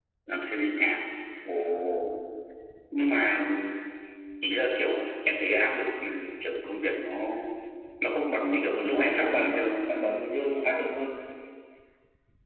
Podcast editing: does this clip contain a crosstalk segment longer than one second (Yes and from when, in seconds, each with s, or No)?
Yes, from 8.4 s